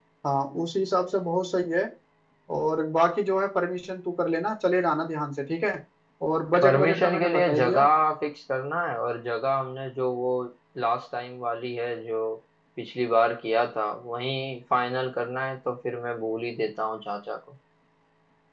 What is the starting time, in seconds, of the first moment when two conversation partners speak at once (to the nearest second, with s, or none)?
7 s